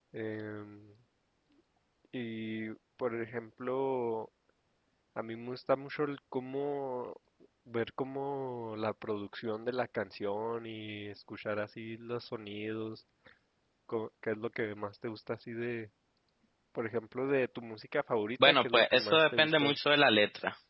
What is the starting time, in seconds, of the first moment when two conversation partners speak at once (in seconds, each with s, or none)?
18.4 s